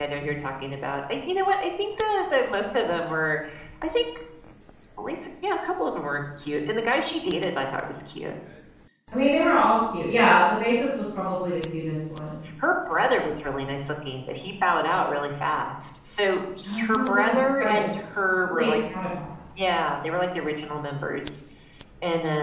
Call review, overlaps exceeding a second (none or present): present